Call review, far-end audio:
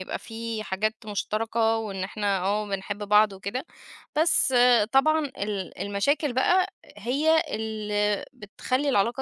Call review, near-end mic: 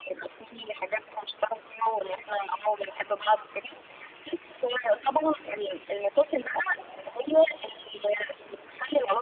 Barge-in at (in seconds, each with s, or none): none